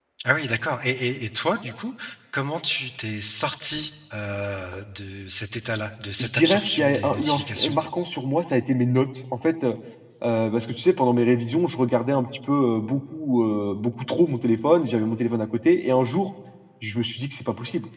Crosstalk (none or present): present